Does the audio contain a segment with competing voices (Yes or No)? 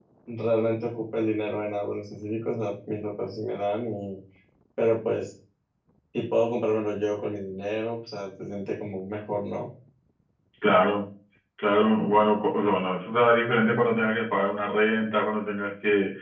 No